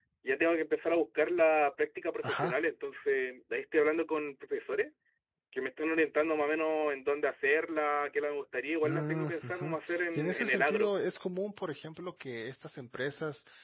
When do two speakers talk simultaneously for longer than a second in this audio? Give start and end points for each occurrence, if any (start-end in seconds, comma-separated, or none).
8.8-10.9